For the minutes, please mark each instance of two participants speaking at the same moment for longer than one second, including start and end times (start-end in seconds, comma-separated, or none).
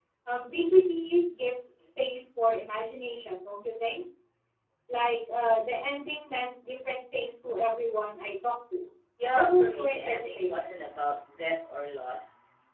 9.3-10.8